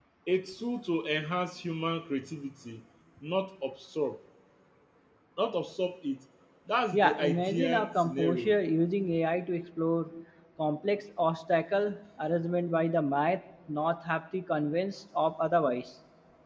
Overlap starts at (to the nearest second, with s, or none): 7 s